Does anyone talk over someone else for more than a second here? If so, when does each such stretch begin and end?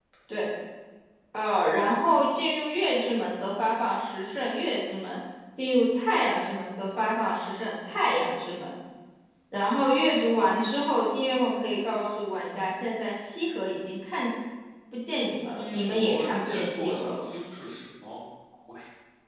15.6-17.3

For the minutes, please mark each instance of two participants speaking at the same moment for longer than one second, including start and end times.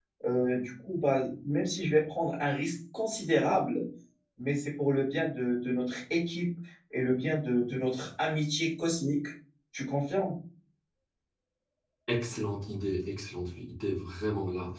none

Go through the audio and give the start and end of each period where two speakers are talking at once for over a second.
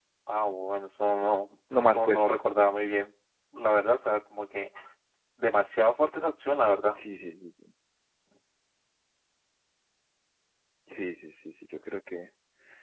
none

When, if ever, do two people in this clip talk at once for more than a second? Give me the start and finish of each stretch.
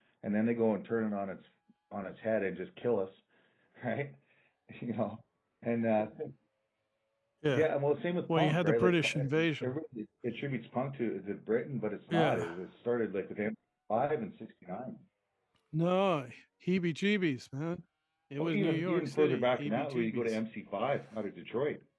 8.3-9.8, 18.4-20.4

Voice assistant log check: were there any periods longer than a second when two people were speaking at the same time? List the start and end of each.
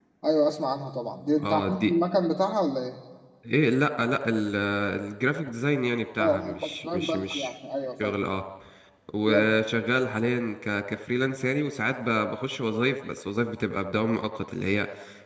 6.2-7.5

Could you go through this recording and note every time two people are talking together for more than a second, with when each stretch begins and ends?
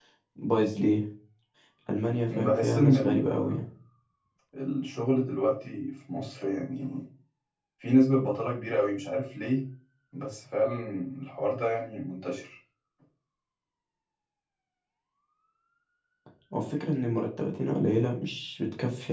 2.3-3.6

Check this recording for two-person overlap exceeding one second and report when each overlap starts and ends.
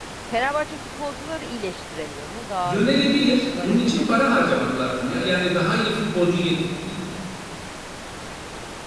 2.6-4.6

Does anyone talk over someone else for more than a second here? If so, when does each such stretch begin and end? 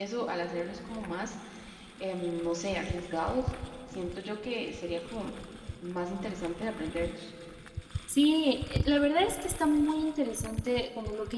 none

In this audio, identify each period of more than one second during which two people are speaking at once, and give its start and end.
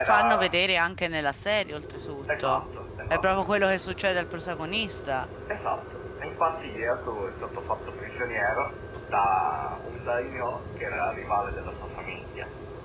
none

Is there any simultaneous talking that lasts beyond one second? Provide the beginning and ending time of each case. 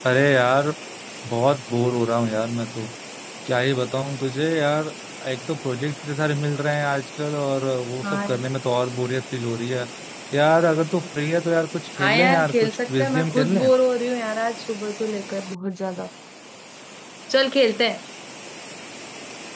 12.0-13.7

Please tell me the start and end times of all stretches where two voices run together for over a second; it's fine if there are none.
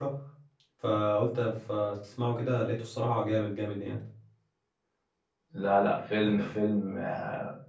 none

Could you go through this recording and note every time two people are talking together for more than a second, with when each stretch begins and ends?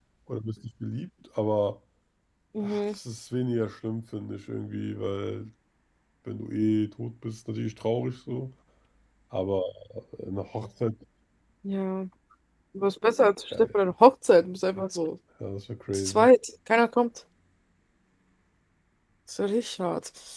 none

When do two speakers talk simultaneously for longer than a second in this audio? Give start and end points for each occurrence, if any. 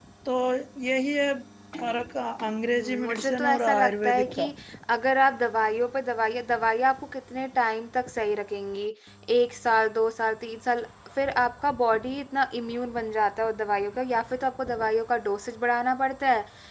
2.6-4.5

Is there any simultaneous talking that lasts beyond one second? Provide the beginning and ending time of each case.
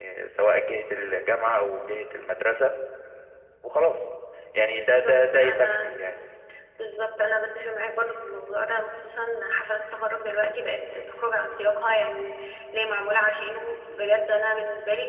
4.7-5.9

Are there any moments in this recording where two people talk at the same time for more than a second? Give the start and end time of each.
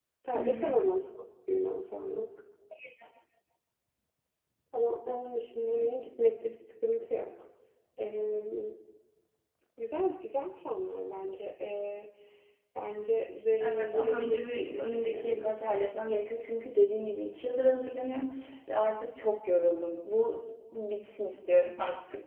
13.6-15.5

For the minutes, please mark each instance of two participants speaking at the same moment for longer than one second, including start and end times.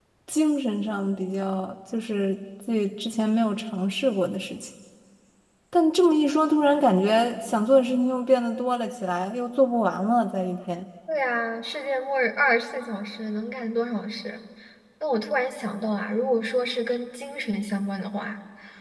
none

